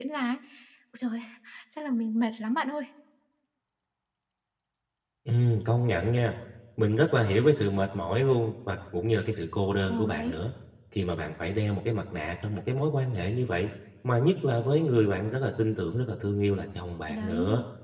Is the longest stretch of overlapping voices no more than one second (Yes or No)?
Yes